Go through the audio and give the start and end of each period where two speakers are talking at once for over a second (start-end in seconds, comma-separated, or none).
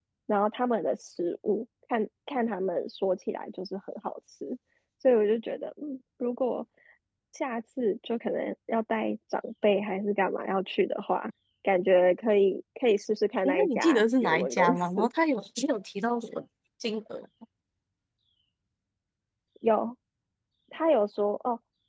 13.4-15.1